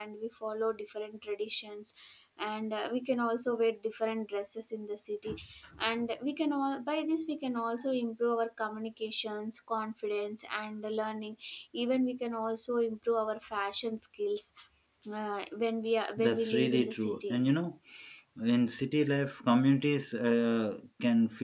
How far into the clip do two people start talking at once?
16.2 s

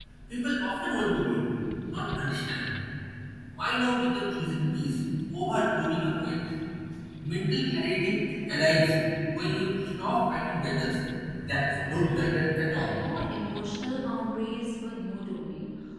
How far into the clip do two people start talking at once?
11.6 s

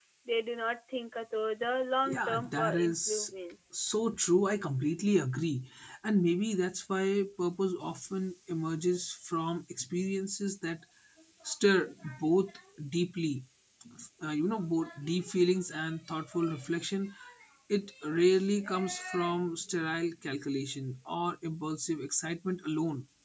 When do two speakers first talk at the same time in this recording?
2.0 s

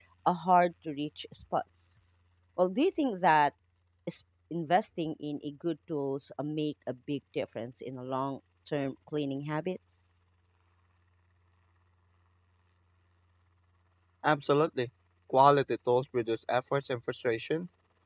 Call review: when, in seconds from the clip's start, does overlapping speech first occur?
none

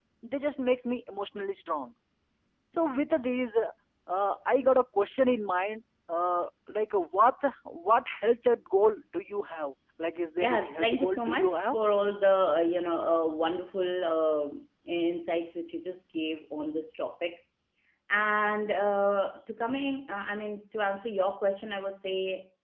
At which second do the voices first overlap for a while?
10.4 s

